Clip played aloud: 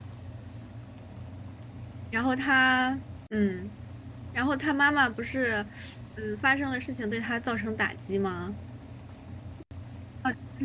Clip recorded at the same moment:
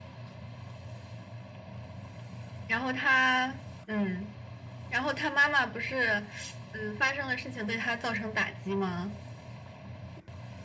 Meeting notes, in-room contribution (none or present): none